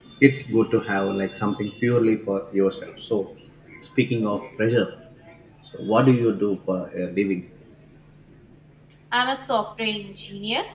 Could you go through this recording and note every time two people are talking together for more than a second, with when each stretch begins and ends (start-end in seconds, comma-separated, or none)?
none